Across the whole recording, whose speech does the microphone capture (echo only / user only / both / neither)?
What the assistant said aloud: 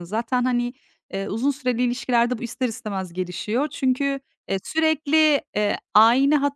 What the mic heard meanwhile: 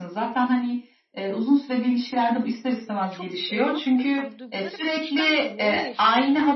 both